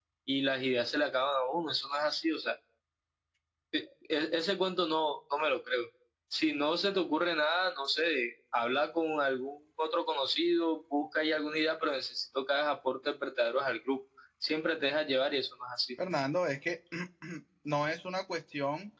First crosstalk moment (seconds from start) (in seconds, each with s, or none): none